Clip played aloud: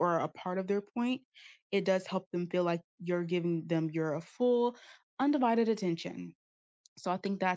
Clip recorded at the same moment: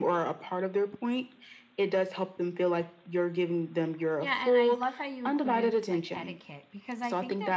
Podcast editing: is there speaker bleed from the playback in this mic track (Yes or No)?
Yes